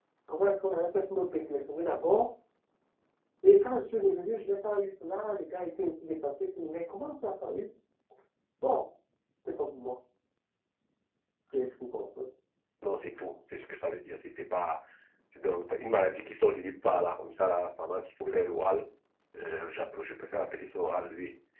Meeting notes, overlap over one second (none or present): none